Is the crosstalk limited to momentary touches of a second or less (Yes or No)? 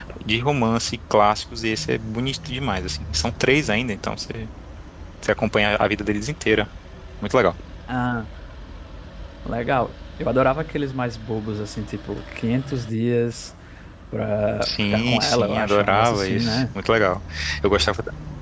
No